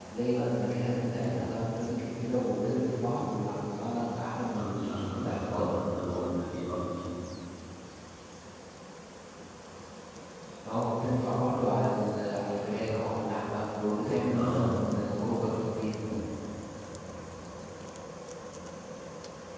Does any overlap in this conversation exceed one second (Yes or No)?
Yes